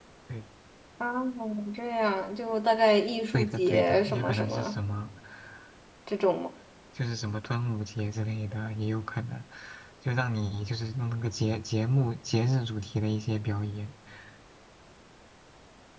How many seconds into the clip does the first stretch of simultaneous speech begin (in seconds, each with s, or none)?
3.3 s